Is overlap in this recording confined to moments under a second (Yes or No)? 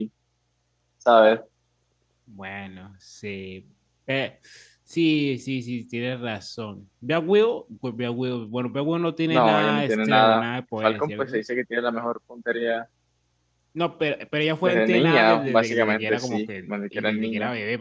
No